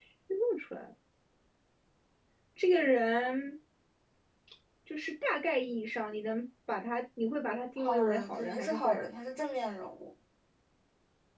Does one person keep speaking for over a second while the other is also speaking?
Yes, from 7.8 s

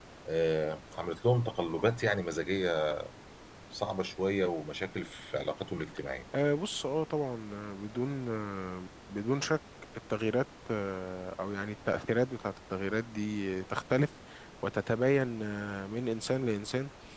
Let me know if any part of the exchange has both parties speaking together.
No

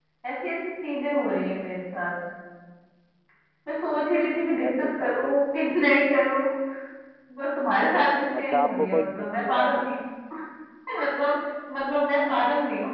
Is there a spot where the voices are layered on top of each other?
Yes, from 3.9 s

